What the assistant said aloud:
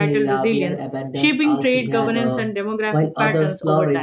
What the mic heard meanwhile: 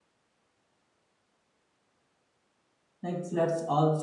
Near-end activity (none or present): present